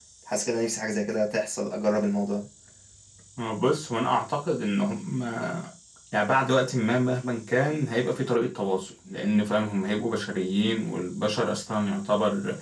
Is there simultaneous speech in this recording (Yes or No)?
No